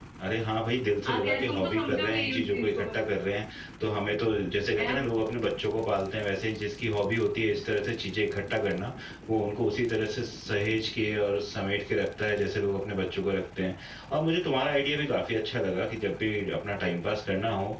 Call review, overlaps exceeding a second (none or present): present